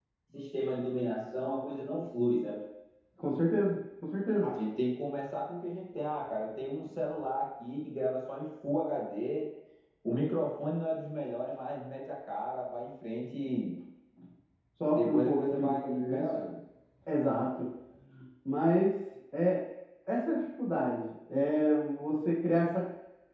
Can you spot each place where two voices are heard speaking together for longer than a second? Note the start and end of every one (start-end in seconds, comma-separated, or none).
15.0-16.3